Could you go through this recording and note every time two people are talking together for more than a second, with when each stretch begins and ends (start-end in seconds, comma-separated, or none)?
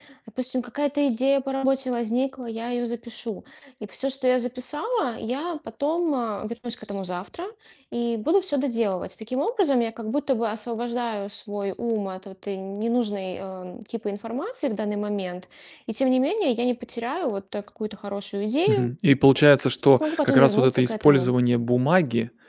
19.9-21.3